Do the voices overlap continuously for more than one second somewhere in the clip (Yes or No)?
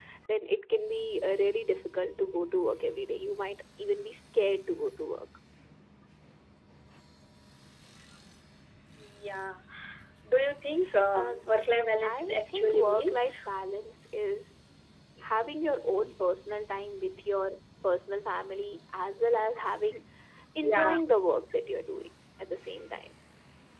Yes